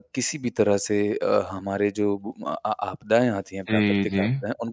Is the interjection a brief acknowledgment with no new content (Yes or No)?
Yes